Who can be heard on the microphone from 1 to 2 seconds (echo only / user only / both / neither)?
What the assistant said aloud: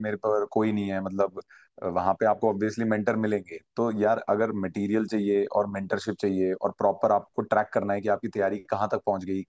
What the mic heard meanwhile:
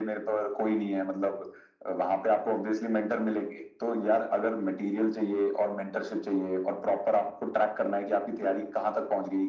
echo only